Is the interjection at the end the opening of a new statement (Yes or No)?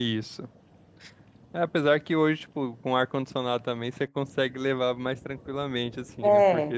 No